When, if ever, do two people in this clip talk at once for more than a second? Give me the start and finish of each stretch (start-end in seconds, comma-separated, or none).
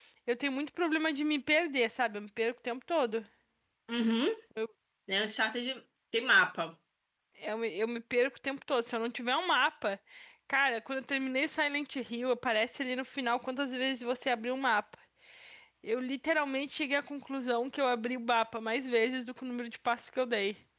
none